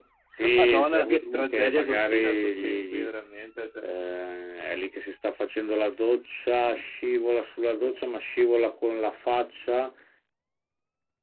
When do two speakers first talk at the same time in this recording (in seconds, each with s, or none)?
0.6 s